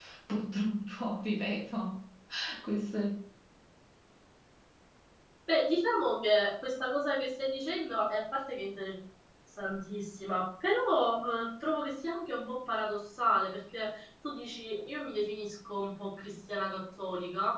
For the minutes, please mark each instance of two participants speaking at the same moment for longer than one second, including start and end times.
none

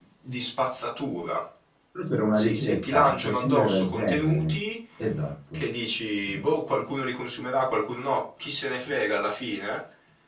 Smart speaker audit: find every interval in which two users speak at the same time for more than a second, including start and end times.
2.3-4.6

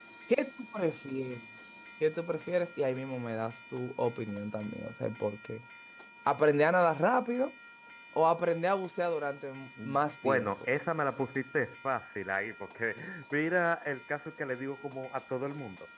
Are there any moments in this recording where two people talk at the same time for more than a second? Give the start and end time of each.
none

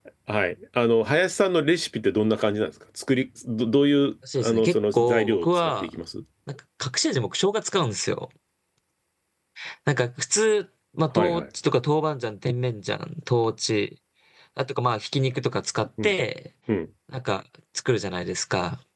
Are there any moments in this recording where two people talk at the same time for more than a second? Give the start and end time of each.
4.4-5.9

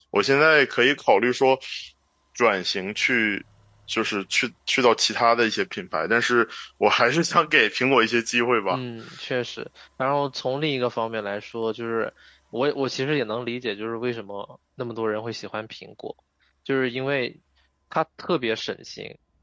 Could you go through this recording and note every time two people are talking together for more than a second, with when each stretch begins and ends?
none

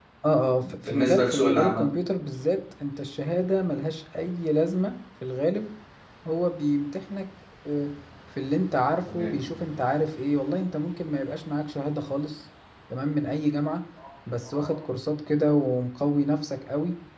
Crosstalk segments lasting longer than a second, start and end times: 0.6-1.9

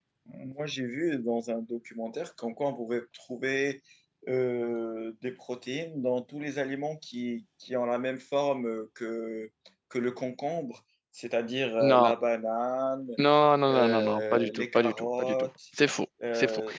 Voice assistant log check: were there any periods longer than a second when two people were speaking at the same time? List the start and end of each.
13.7-15.5

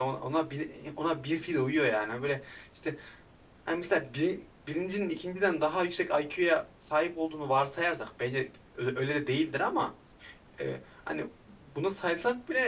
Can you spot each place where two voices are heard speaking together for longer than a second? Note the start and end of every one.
none

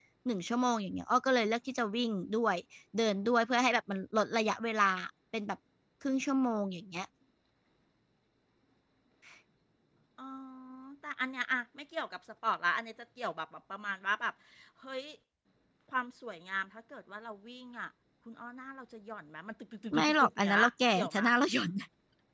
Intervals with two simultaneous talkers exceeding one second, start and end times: 19.9-21.2

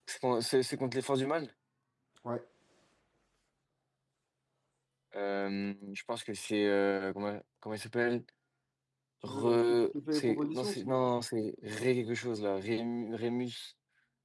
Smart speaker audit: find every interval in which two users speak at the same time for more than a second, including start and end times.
9.3-11.1

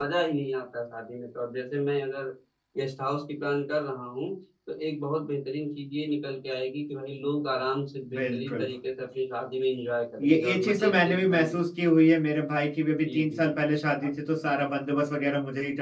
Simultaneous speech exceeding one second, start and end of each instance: 10.2-11.5

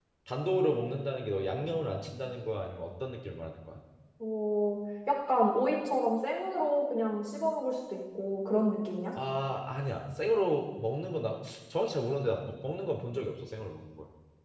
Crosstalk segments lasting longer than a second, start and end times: none

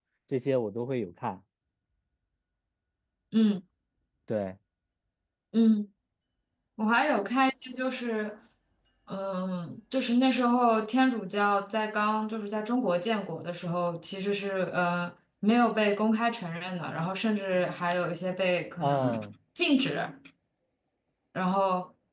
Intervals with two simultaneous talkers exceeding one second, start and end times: none

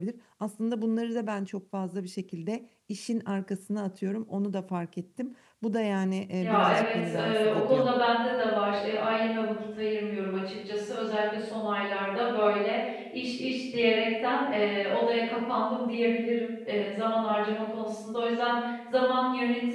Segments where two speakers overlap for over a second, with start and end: 6.4-7.9

